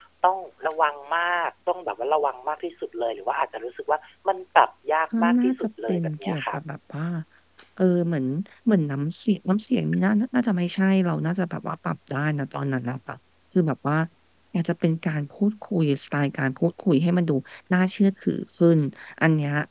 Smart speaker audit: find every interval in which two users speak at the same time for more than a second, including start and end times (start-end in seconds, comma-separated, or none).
5.2-6.6